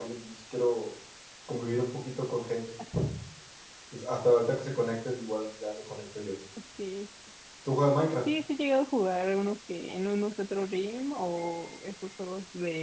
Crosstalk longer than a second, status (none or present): none